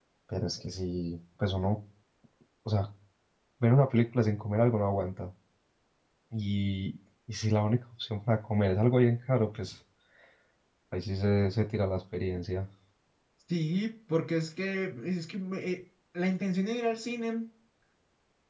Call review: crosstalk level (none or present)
none